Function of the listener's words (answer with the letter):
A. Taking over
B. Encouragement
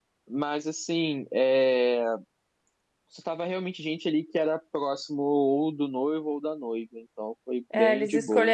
A